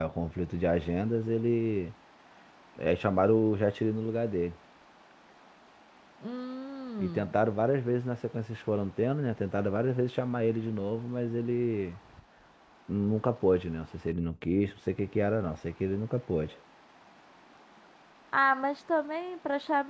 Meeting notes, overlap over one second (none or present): none